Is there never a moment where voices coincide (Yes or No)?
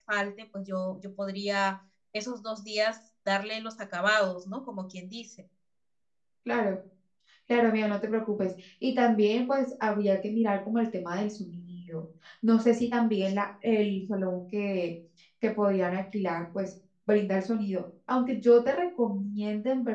Yes